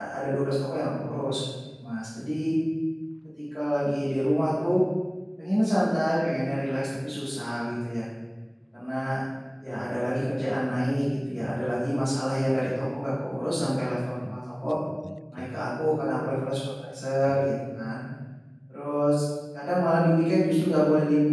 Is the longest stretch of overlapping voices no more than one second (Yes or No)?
Yes